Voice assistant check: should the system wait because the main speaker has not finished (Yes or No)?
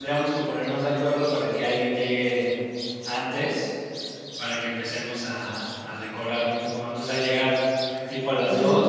Yes